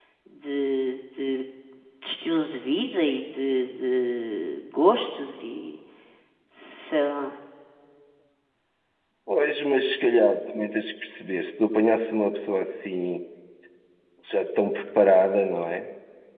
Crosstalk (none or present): none